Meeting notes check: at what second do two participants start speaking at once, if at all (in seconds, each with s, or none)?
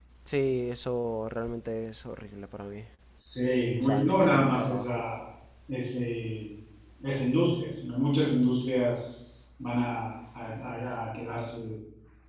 3.8 s